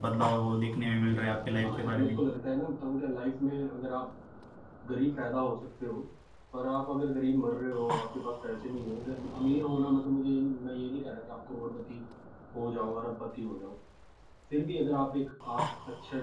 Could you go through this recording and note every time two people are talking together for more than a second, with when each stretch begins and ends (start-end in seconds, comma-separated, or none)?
none